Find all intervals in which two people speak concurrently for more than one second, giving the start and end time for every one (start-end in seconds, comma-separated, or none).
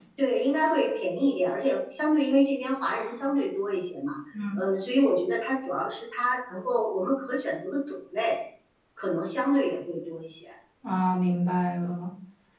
none